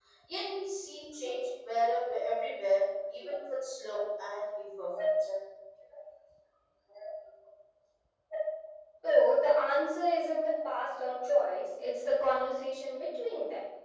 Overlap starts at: none

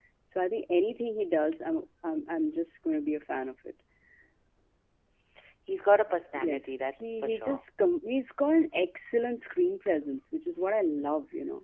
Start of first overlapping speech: 6 s

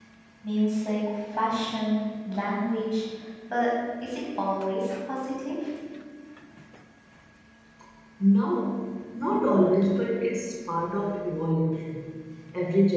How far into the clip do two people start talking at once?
none

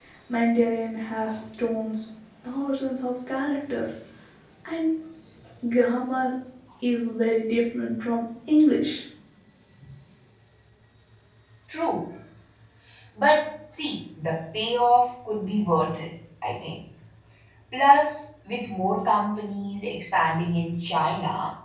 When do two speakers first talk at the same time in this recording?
none

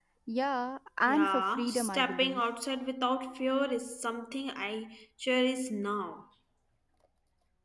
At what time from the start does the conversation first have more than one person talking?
1 s

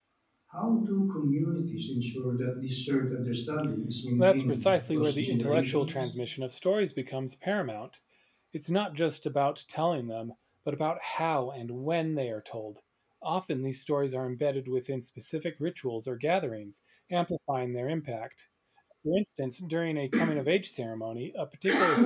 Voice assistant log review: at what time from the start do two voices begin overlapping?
4 s

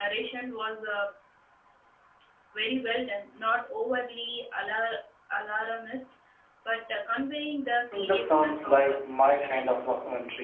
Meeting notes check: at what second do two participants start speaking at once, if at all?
8 s

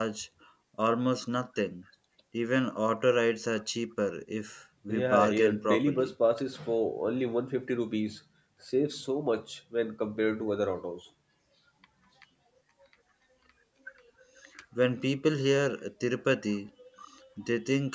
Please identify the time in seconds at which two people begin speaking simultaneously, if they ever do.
5 s

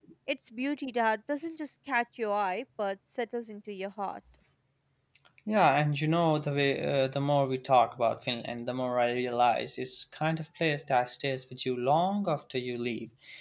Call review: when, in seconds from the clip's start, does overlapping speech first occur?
none

